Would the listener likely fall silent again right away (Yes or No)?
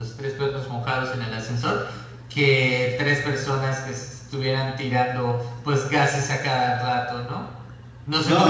No